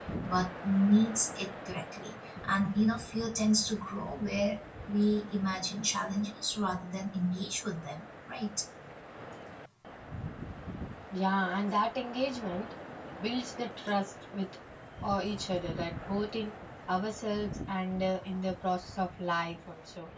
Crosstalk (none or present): none